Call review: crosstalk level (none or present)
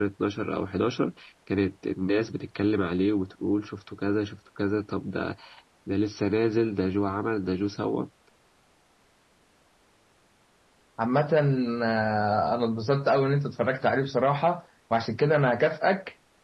none